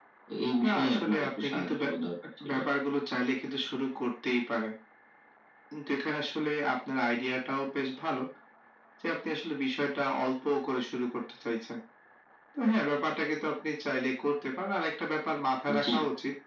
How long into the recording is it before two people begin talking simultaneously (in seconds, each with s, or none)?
0.6 s